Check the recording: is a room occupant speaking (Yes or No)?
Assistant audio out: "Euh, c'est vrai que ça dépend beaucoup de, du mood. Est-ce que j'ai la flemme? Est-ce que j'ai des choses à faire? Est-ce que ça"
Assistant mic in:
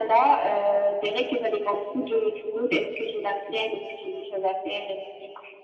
No